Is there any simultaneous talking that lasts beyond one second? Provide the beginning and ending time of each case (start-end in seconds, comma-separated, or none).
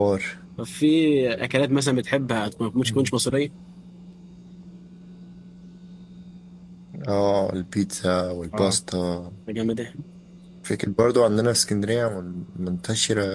none